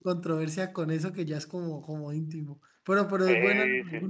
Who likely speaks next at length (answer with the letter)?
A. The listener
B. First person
A